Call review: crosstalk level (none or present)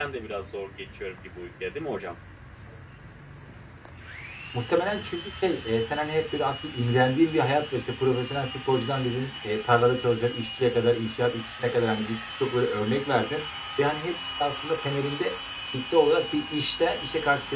none